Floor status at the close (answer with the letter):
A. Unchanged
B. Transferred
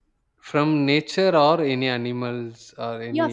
B